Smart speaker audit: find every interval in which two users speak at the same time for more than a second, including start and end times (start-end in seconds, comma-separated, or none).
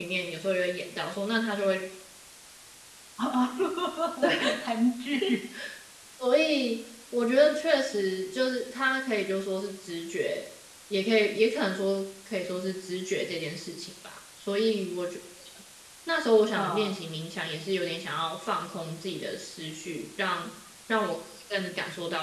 none